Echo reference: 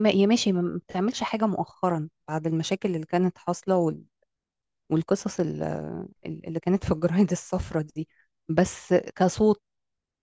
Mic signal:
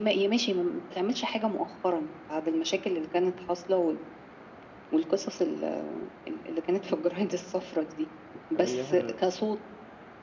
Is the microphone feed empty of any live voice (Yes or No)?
No